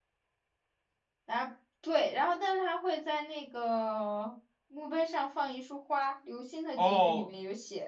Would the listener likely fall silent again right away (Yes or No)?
No